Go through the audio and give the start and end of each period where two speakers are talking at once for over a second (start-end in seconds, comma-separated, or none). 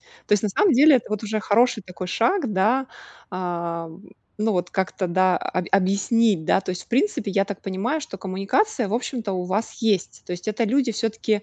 none